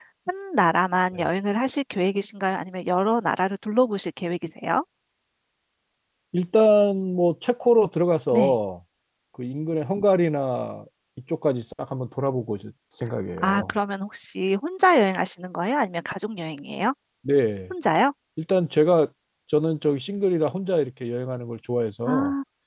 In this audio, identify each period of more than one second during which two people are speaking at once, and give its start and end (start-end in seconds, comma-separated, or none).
none